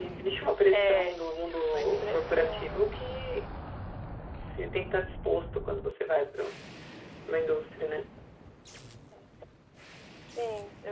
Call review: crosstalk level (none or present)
present